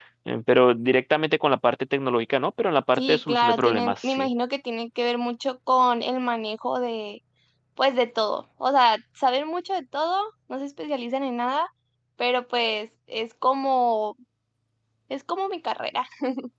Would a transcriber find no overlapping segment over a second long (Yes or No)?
No